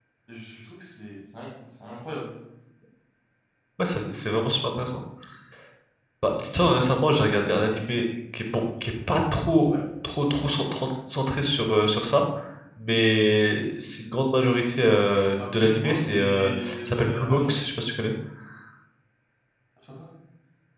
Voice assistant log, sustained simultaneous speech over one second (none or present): present